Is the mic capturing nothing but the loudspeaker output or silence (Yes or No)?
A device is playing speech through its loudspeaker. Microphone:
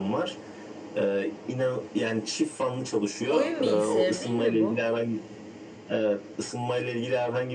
No